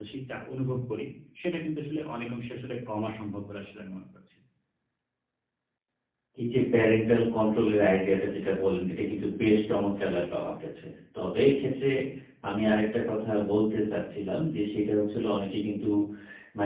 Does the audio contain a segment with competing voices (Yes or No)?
No